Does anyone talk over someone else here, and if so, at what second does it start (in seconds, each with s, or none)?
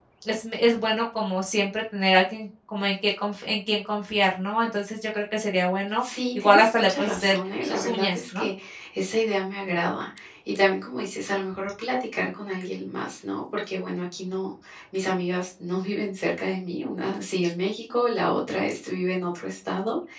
6.0 s